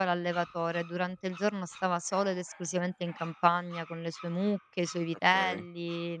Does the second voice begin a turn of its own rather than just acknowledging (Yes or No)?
No